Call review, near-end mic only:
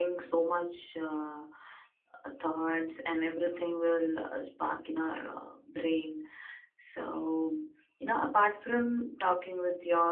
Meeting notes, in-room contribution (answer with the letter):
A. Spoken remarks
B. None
A